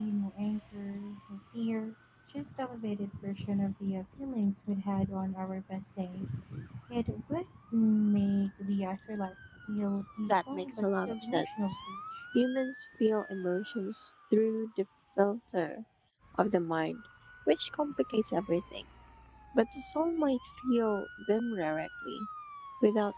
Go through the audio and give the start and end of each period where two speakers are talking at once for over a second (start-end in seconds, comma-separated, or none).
10.3-11.8